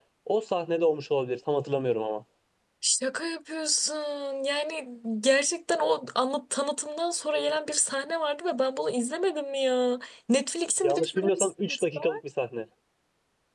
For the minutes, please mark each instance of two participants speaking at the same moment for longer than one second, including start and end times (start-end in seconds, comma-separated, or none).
10.8-12.2